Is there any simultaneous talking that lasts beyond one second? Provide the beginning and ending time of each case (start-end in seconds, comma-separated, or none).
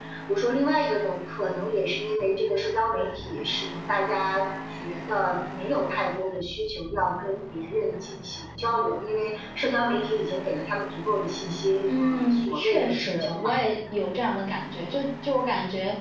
12.0-13.5